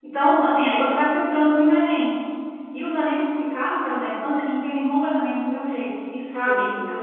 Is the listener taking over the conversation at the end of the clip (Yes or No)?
No